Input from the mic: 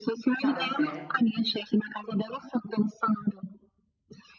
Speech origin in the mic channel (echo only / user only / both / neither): both